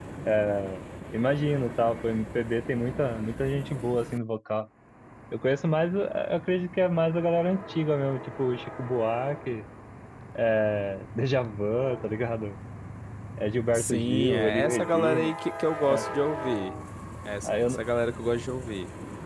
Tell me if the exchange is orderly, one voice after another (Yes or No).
No